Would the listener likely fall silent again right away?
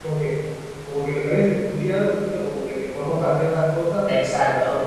No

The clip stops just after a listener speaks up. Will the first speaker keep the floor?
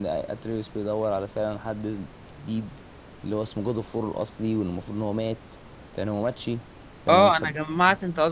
No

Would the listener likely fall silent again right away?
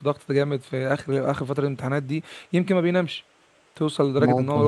Yes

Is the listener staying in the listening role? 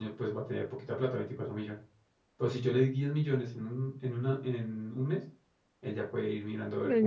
No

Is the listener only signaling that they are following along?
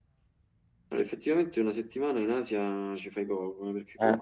Yes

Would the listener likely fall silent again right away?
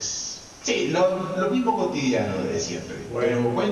Yes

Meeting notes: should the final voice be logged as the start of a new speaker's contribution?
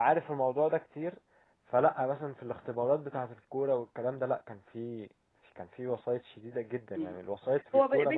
Yes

